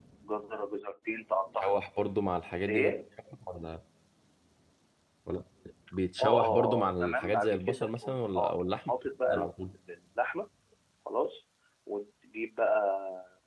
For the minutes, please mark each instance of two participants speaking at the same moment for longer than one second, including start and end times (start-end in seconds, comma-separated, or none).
6.2-8.9